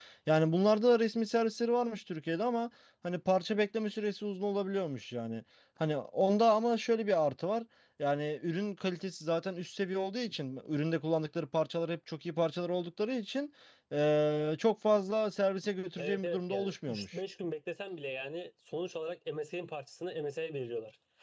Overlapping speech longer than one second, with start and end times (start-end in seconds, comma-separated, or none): 16.0-17.2